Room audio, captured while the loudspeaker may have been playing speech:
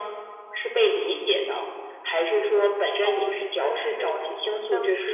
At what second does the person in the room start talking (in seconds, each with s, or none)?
3.0 s